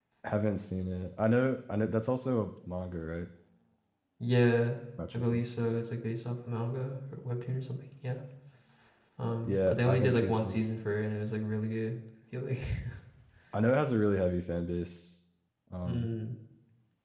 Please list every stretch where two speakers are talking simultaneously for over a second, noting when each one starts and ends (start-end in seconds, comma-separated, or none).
9.4-10.6